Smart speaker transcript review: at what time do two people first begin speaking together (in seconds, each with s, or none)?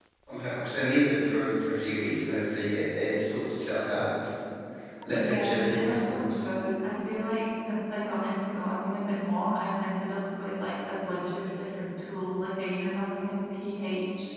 5.1 s